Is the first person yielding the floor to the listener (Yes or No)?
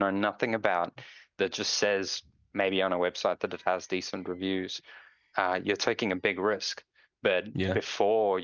No